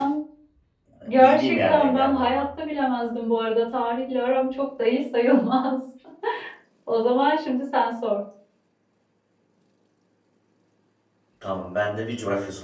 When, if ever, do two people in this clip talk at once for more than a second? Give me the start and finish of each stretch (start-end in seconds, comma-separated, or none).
1.1-2.4